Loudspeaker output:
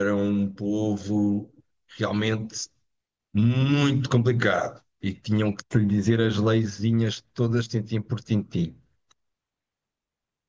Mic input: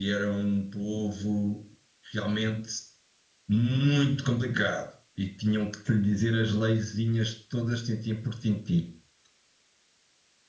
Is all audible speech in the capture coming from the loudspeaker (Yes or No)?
Yes